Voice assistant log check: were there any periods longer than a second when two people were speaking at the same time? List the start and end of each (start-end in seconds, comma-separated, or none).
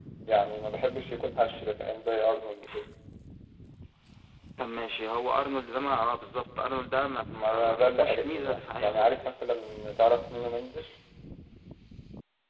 7.4-9.4